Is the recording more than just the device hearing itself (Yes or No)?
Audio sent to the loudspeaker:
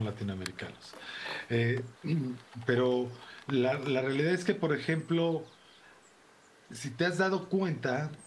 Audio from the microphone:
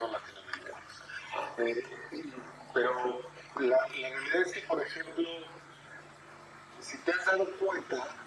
No